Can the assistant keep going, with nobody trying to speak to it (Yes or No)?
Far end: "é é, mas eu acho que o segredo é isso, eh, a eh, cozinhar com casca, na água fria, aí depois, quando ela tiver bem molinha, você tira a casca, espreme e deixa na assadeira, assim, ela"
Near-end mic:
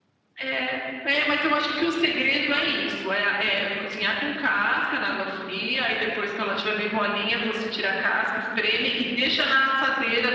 Yes